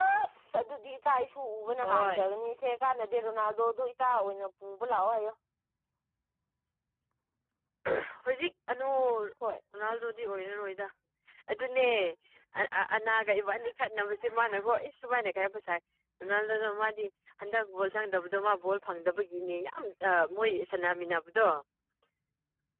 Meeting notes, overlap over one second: none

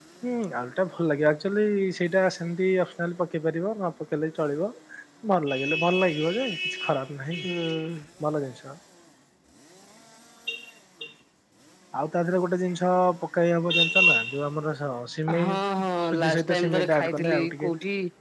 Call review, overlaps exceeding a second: present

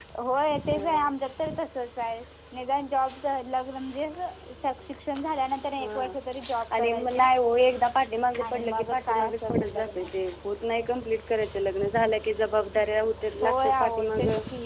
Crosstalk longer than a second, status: present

